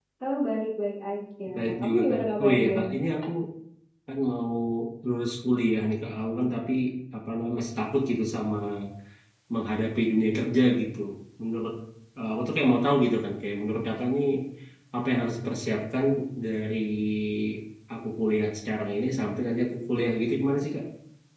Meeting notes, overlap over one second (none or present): present